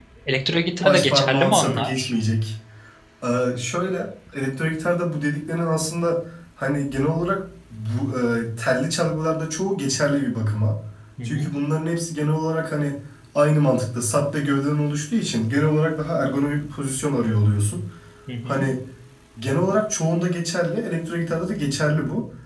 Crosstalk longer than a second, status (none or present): present